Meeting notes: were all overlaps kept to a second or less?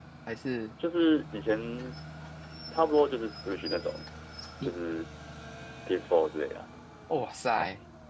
Yes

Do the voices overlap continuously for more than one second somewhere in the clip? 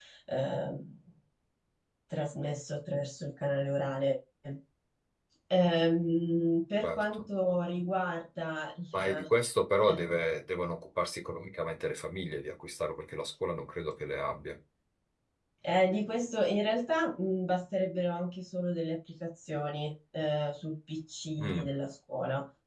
No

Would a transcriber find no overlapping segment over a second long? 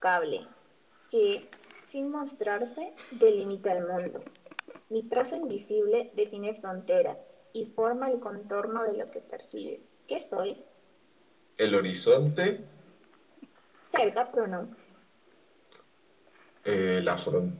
Yes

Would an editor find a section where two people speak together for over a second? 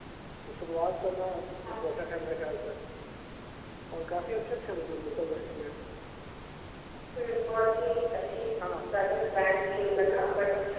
No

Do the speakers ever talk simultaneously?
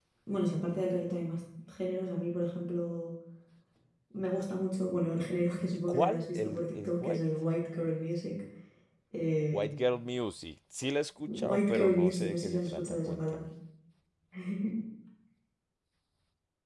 Yes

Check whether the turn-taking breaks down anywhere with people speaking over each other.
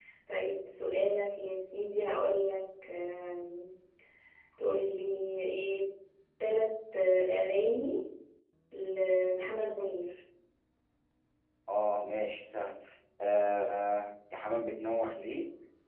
No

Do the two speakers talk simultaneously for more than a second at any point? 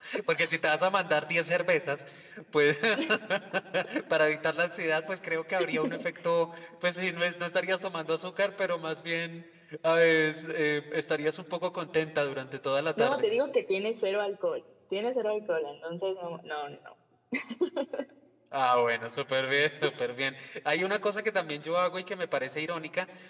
No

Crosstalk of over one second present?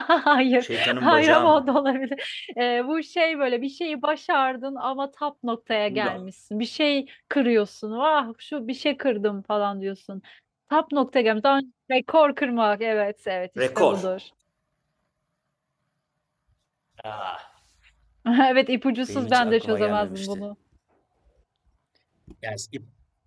Yes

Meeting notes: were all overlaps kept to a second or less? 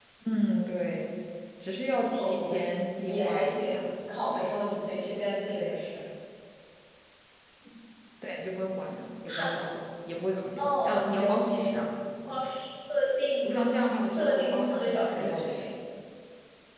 No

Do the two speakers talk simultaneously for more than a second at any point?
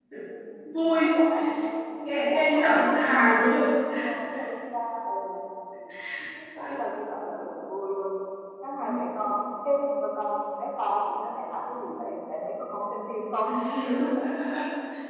Yes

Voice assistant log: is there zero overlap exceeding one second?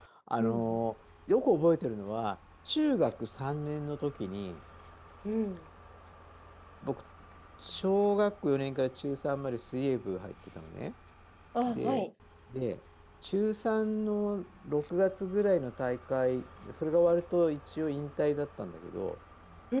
Yes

